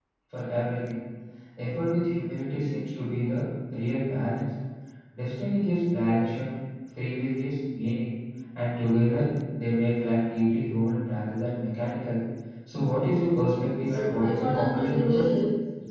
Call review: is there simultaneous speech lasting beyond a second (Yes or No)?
Yes